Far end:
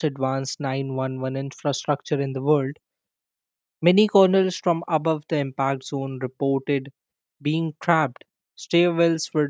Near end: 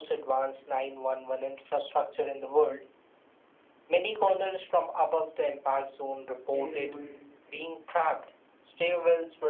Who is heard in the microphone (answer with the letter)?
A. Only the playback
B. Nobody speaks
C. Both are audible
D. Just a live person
C